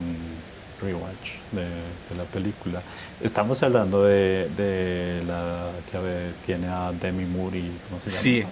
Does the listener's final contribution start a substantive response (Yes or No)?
Yes